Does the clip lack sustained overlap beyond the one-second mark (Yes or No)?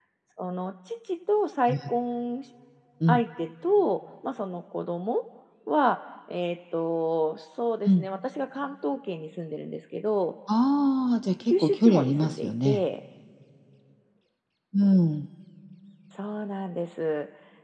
No